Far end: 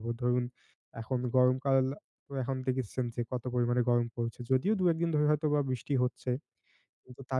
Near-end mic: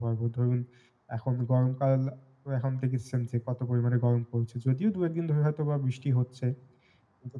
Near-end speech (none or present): none